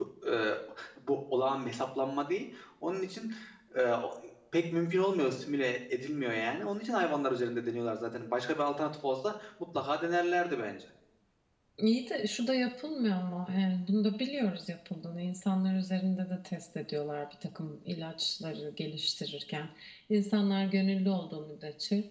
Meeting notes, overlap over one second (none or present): none